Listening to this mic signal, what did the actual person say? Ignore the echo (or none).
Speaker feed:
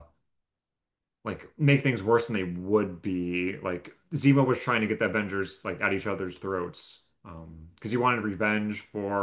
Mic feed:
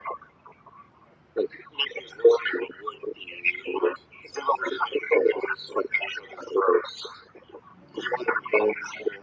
none